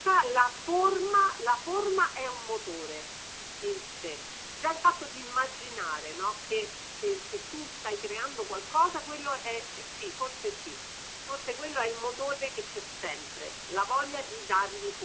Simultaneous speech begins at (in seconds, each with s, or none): none